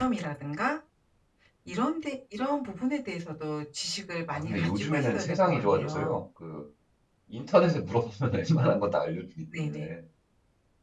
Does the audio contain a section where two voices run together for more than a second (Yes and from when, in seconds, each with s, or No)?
Yes, from 4.3 s